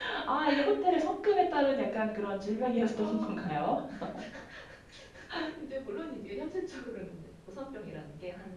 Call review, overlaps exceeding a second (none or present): none